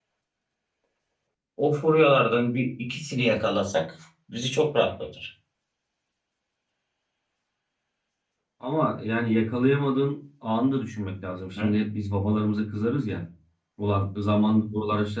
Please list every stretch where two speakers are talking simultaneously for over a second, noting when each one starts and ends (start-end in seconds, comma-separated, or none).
none